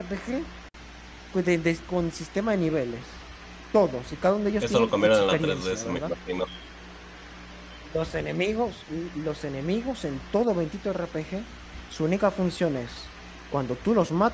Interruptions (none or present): present